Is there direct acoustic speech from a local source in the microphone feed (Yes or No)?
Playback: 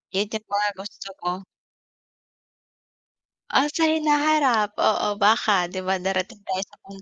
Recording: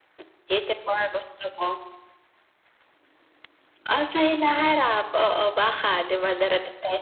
No